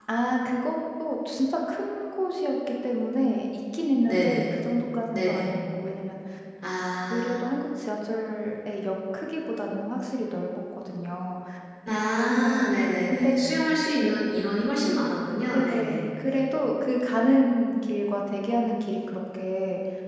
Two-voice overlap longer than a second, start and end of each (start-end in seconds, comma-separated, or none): none